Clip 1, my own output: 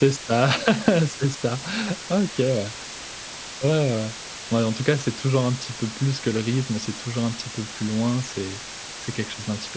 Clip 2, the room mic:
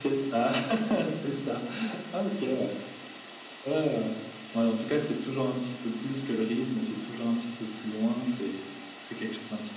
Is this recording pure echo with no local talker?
Yes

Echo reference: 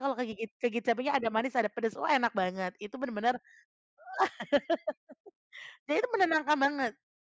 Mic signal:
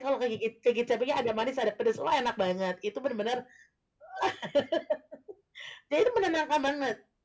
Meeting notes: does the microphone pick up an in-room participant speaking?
No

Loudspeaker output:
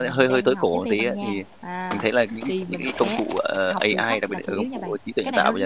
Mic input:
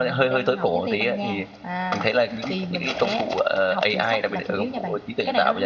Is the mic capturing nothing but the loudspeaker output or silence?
Yes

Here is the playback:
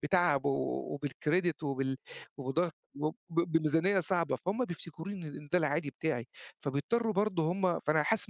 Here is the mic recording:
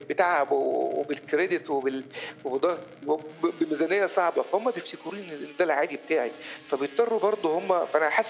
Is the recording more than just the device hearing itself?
No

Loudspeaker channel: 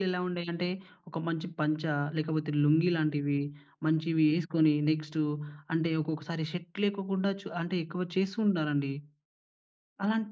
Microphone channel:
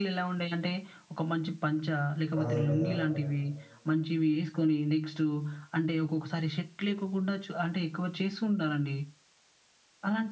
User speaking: Yes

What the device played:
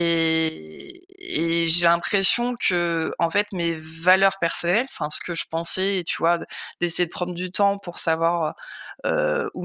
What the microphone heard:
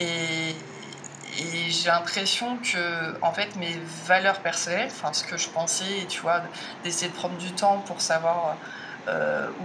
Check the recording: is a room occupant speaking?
No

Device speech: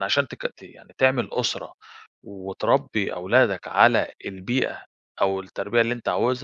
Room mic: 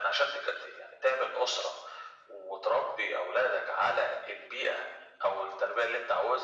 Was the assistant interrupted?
No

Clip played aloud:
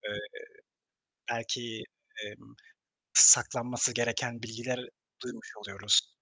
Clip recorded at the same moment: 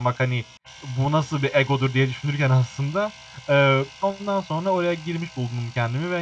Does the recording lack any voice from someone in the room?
No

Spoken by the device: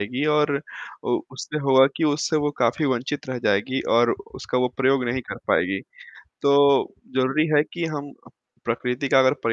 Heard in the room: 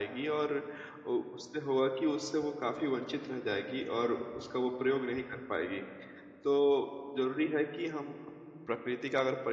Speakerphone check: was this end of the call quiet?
Yes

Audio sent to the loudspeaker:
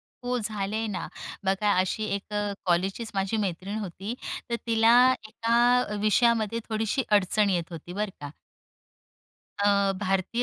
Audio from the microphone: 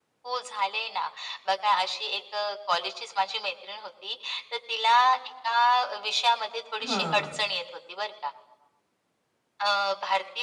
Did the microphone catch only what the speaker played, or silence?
No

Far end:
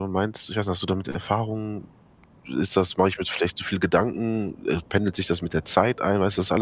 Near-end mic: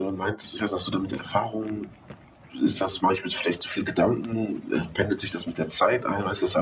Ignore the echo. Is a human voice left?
No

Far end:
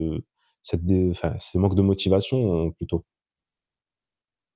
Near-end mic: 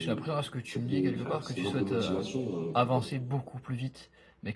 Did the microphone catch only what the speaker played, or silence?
No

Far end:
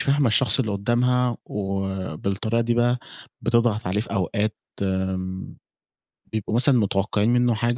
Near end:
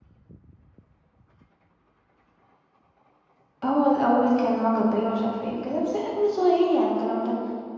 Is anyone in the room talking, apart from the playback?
Yes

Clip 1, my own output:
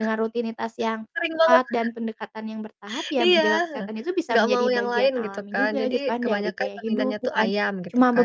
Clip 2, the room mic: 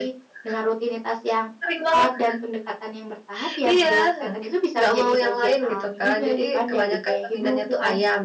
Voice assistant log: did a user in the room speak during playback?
No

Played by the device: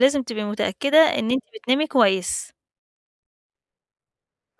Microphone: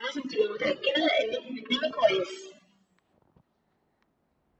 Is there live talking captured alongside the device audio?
No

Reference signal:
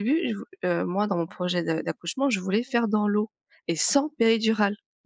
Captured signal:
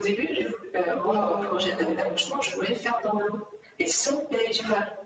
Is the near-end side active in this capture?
Yes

